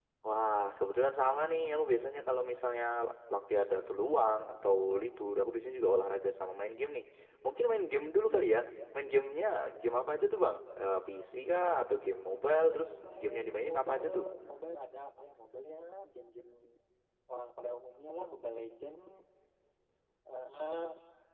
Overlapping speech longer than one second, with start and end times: 12.7-14.2

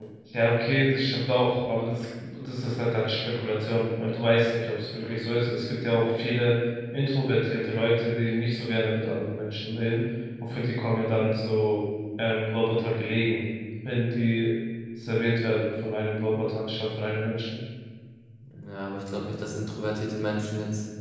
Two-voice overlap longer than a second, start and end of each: none

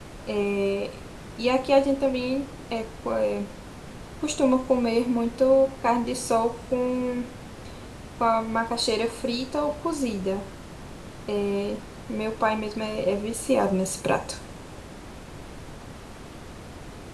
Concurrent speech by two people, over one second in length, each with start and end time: none

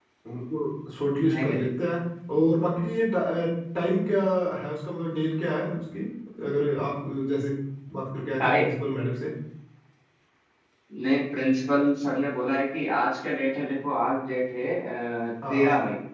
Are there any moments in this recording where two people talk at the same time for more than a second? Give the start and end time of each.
none

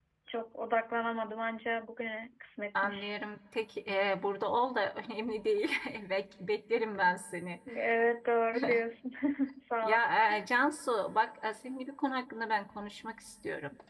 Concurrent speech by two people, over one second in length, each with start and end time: none

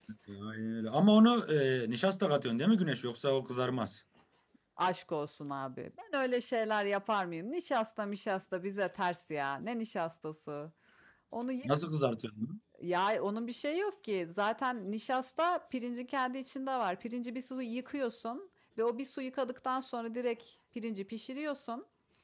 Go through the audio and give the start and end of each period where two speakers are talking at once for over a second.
none

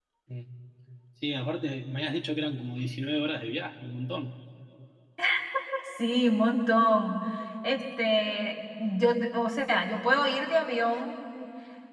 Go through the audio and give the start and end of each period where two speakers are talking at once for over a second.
none

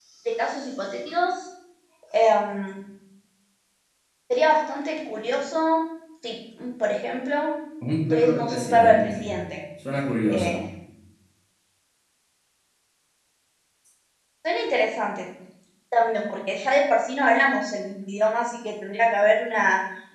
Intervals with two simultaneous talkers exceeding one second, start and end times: 8.1-9.3

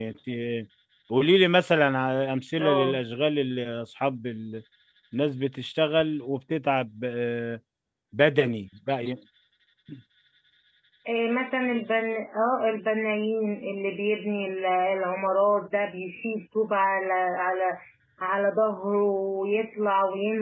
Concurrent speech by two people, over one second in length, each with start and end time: none

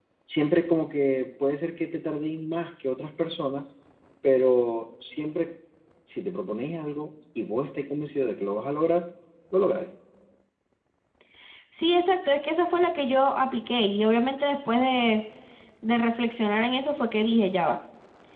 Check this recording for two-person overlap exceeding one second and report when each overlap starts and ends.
none

